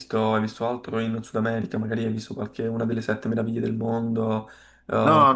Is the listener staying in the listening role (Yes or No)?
No